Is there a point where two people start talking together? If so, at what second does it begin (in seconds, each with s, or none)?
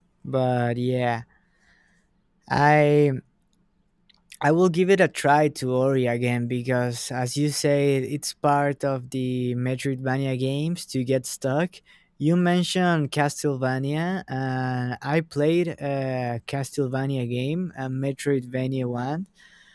none